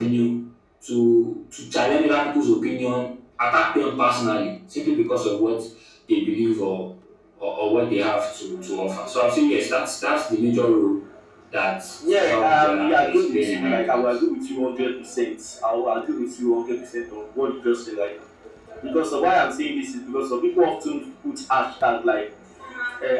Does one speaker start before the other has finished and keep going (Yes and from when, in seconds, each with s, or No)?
Yes, from 12.1 s